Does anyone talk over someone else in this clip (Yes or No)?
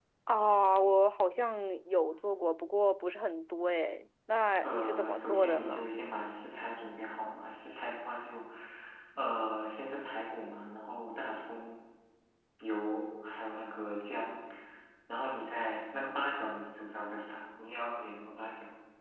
Yes